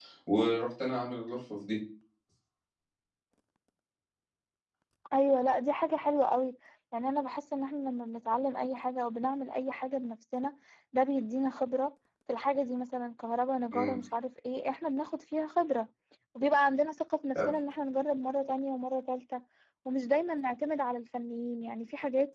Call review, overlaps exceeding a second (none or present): none